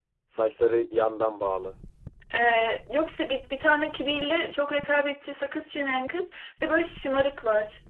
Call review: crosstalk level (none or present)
none